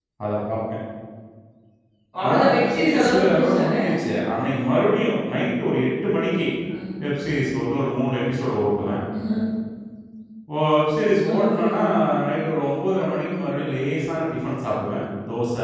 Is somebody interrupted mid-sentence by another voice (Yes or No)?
Yes